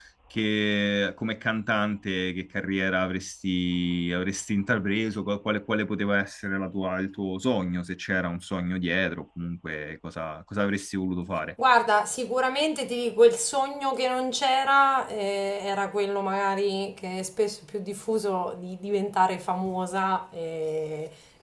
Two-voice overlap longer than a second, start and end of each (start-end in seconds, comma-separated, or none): none